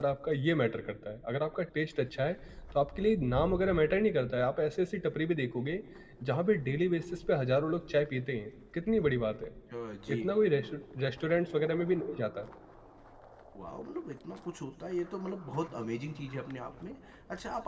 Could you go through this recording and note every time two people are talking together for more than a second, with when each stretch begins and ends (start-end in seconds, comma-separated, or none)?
none